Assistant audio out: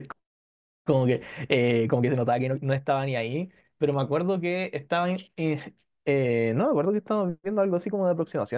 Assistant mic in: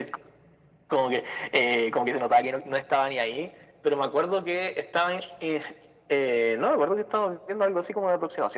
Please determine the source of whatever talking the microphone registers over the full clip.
echo only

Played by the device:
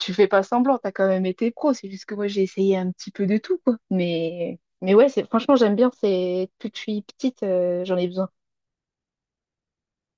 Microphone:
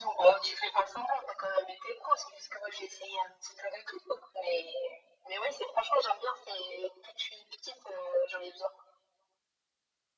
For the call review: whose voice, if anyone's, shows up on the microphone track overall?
echo only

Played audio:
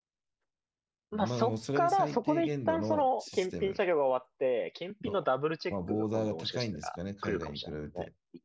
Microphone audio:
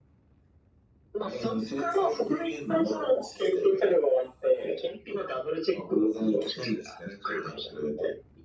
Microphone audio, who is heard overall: echo only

